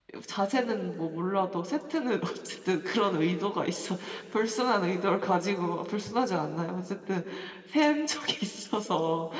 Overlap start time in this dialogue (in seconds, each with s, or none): none